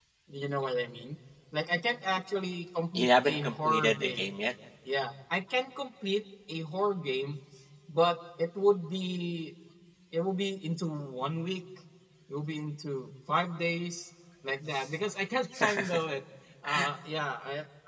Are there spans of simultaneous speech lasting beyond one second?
Yes, from 2.9 s

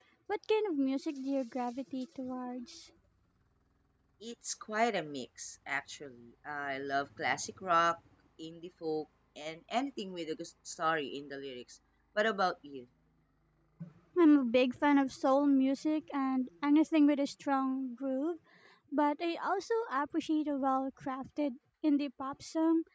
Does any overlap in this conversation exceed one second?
No

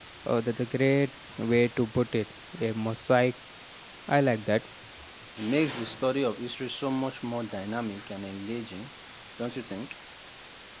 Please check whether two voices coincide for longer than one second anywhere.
No

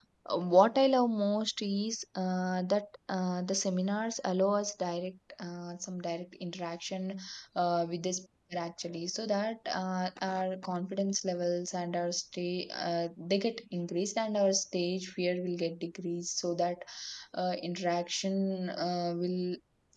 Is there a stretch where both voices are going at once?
No

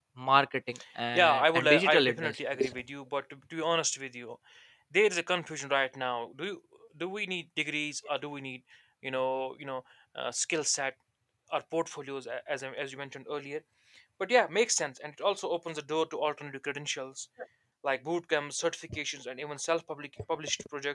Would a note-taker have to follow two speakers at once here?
Yes, from 1.1 s

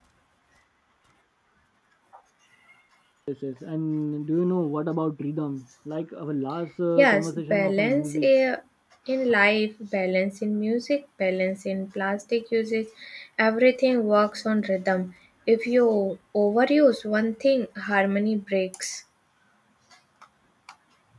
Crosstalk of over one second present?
Yes, from 7.0 s

